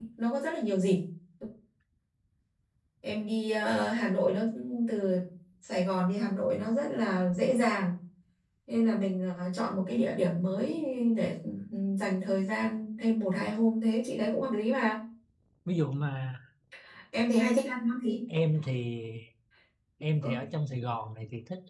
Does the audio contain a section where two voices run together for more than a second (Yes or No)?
No